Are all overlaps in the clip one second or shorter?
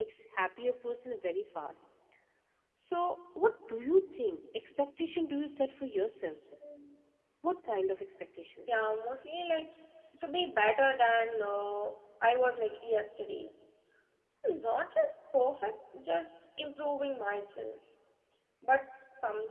Yes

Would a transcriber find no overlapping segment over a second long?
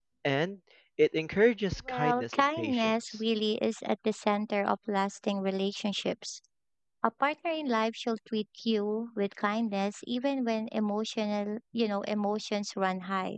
No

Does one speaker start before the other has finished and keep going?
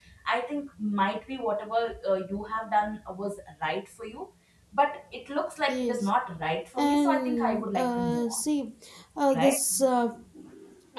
Yes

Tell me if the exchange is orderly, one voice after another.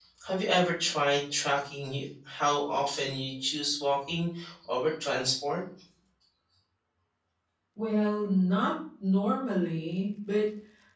Yes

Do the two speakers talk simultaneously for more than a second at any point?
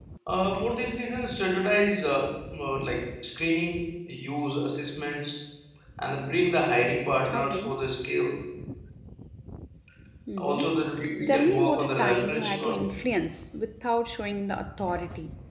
Yes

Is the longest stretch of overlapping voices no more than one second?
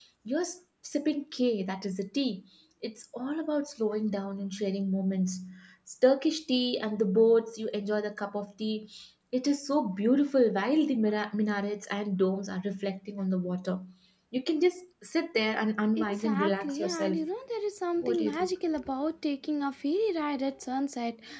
No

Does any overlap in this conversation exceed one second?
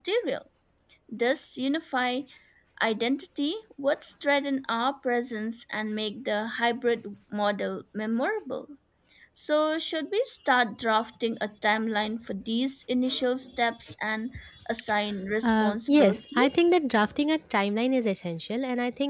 Yes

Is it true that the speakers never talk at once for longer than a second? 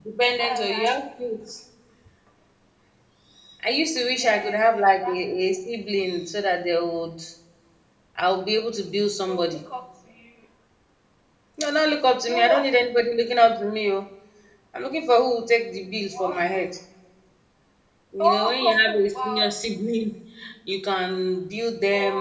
No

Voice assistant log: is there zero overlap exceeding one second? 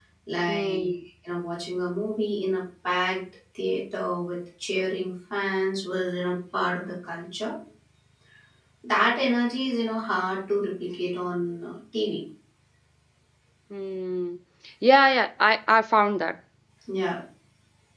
Yes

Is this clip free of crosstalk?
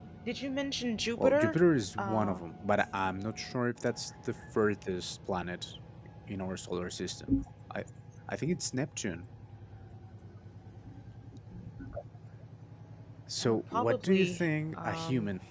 No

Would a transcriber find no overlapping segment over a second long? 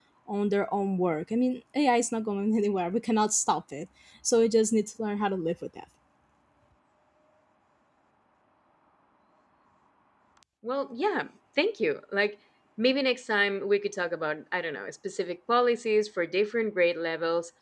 Yes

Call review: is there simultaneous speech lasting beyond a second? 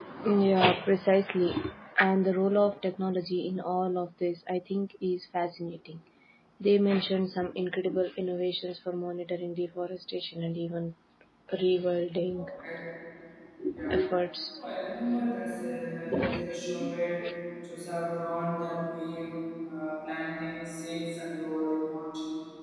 No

